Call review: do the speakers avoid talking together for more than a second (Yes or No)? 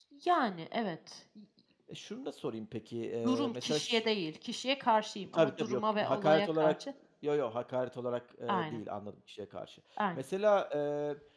No